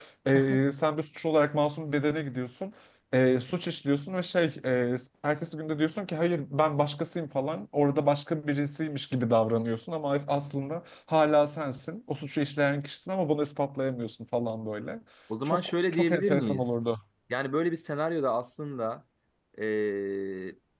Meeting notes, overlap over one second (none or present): present